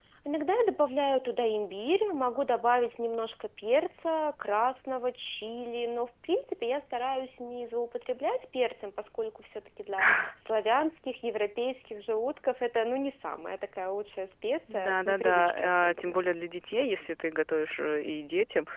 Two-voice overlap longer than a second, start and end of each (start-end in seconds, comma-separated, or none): 14.7-16.2